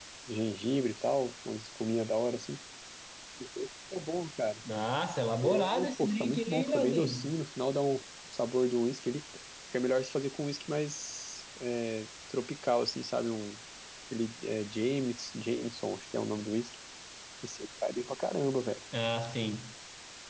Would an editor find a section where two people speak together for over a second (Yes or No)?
Yes